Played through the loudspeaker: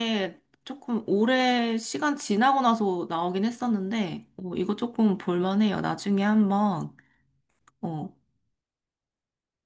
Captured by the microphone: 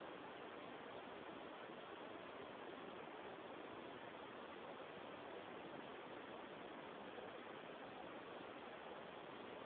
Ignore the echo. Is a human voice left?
No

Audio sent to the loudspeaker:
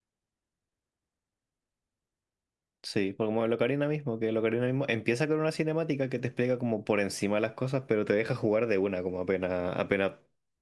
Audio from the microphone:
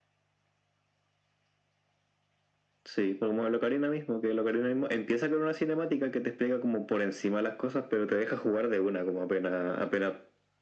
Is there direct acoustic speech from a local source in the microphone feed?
No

